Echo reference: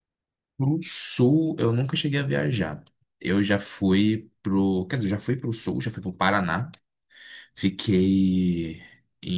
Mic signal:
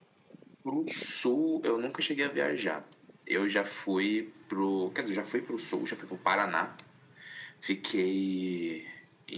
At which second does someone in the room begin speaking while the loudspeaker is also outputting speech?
none

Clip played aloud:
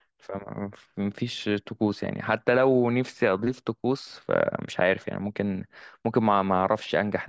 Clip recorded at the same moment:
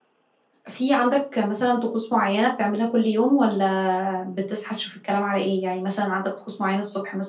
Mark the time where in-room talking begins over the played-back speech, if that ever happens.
0.7 s

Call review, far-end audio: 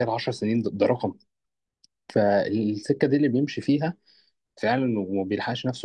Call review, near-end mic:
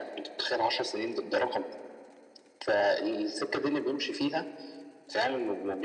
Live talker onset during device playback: none

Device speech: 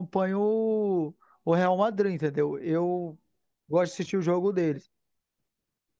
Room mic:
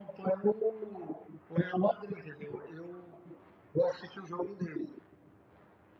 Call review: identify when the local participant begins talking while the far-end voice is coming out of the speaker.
none

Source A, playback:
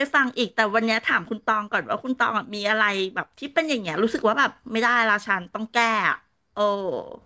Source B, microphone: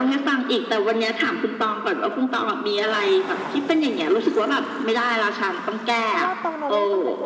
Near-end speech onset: 6.0 s

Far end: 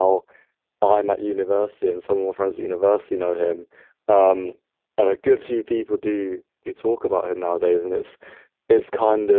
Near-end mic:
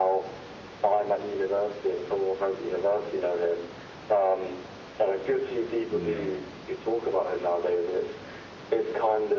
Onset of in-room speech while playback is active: 5.9 s

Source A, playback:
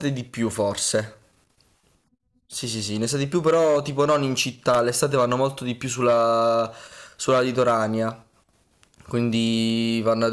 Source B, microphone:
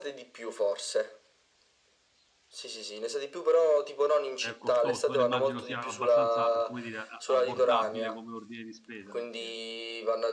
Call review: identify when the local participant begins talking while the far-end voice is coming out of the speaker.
4.3 s

